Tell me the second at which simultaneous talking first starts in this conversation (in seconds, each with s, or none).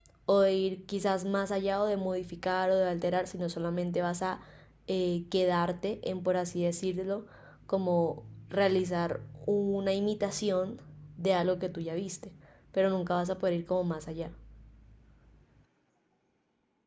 none